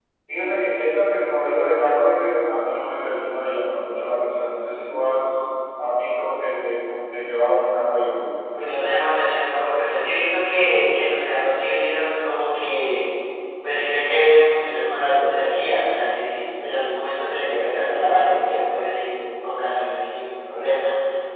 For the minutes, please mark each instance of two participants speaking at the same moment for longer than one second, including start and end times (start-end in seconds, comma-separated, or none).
none